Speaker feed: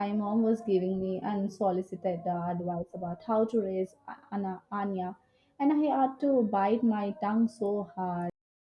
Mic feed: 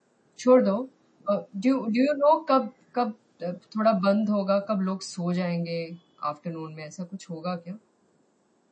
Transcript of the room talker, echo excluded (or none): छोड़ दो। अ, डू डू यू नो कब कब अ, थोड़ा बंद होगा, कब लोग सो जाएँगे आफ्टरनून में, ऐसा कुछ होगा क्या?